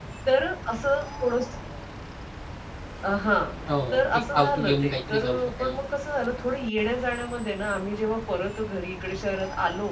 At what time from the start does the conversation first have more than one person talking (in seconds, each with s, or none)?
3.9 s